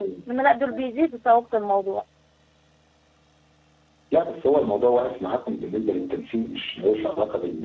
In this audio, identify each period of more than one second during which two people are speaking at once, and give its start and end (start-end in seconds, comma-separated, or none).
none